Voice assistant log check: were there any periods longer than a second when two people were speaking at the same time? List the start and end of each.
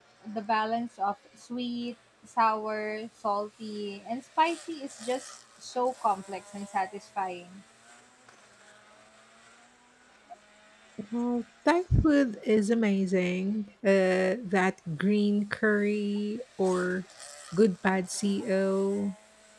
none

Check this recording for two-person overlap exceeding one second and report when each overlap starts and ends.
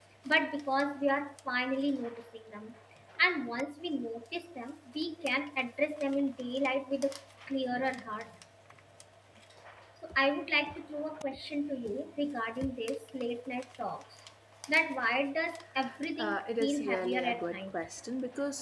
16.2-17.6

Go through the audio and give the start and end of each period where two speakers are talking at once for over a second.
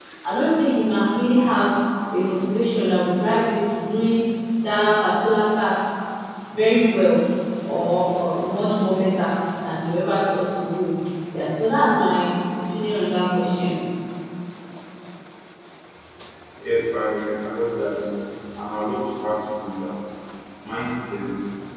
none

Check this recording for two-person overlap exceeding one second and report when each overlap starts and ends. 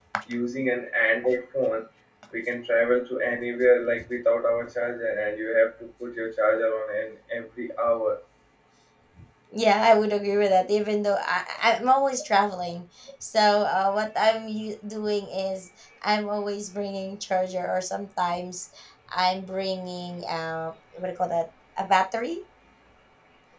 none

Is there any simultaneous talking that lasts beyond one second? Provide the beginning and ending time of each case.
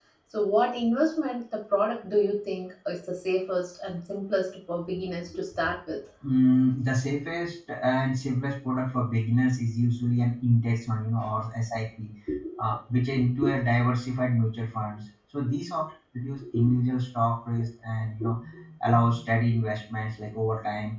none

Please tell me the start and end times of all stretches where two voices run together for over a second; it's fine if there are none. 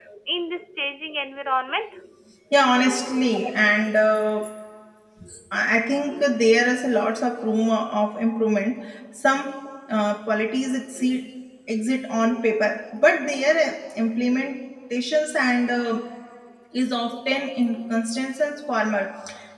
none

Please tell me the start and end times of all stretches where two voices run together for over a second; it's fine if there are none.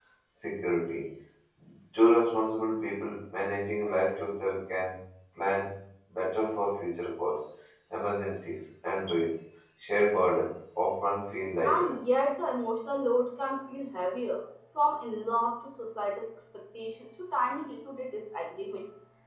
none

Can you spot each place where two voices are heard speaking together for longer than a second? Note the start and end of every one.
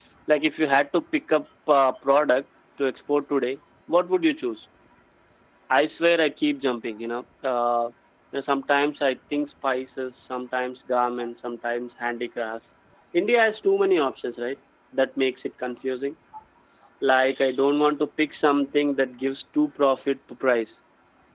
none

